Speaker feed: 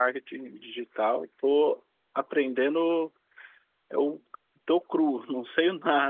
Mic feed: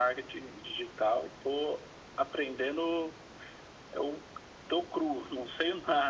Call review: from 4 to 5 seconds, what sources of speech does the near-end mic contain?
echo only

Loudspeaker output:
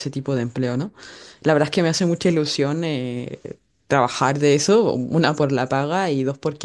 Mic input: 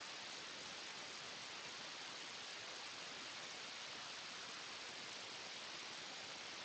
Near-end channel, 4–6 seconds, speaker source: neither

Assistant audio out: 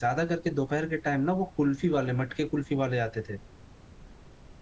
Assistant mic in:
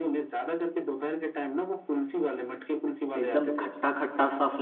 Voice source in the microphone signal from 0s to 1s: echo only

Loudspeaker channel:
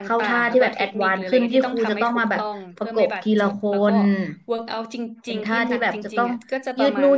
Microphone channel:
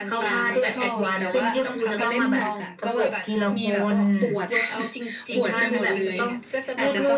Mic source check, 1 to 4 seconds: both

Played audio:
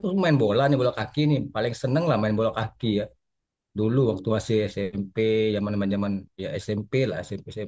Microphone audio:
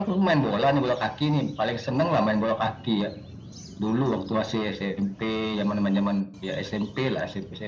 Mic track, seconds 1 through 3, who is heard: echo only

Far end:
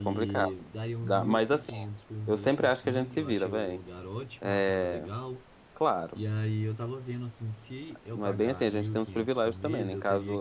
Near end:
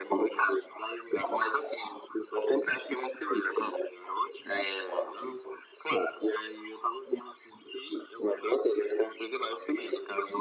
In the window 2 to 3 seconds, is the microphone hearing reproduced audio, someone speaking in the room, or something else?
echo only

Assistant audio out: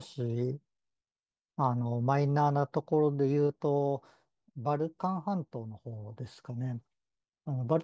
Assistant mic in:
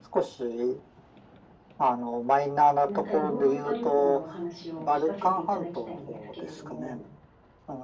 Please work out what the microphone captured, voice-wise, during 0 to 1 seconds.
echo only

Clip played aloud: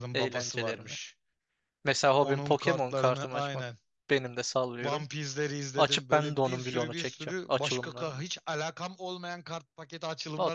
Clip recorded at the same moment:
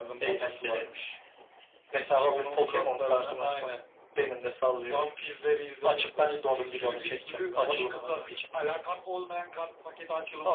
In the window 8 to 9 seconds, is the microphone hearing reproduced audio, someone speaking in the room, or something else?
both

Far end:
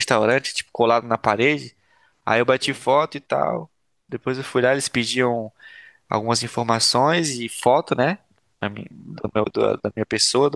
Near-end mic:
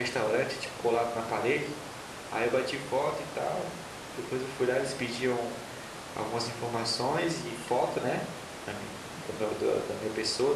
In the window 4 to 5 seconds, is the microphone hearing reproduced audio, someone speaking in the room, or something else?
echo only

